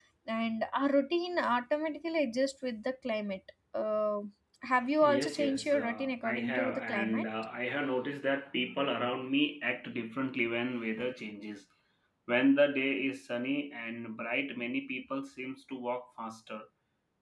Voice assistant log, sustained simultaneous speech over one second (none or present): present